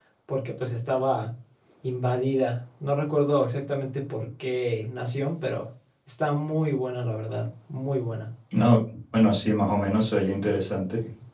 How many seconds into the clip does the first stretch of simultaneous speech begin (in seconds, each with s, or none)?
none